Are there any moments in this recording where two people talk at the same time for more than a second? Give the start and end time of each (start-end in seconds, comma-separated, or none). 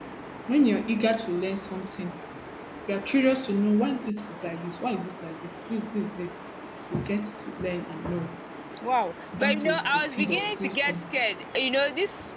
9.4-11.0